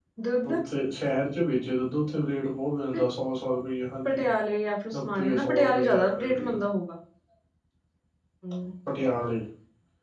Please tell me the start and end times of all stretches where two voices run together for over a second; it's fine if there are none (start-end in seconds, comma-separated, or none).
4.9-6.5